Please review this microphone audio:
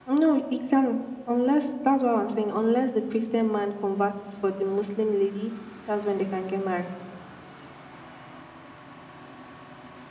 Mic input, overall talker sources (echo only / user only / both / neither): echo only